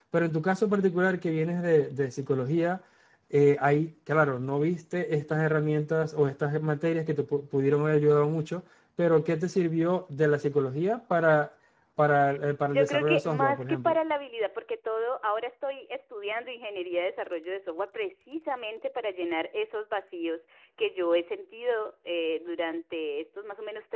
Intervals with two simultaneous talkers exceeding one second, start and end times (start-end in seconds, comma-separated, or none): 12.6-14.0